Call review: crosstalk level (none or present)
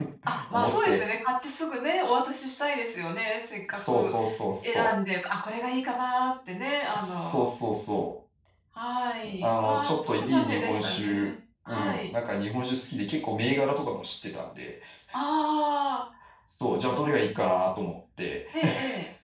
present